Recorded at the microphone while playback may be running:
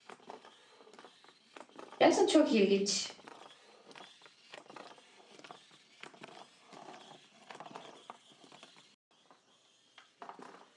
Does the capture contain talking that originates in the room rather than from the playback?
Yes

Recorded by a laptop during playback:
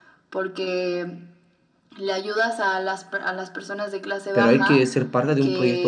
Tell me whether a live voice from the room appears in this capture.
Yes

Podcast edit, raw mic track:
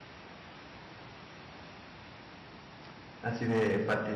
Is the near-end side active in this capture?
Yes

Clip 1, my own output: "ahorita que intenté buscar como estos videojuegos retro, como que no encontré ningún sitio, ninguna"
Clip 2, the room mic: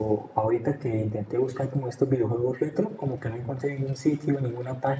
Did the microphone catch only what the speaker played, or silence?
Yes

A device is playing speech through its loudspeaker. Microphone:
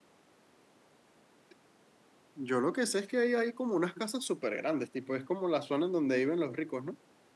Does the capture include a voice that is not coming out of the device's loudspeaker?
Yes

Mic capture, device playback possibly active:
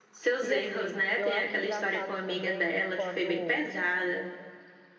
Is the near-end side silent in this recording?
No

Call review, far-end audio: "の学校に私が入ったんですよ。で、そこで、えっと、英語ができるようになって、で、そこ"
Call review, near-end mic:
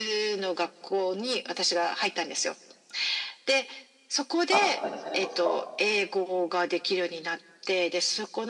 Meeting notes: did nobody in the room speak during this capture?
No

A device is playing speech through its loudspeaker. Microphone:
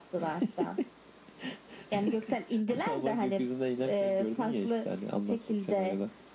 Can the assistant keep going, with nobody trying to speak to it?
Yes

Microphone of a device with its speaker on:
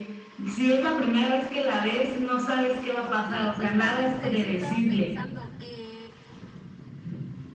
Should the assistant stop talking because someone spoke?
Yes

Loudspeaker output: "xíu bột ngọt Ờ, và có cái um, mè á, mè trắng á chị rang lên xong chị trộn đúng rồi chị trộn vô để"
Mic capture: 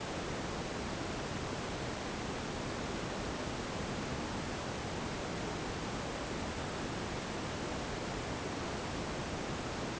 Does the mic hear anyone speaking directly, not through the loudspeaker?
No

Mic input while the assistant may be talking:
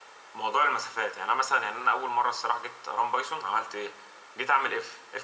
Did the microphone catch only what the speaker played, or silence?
Yes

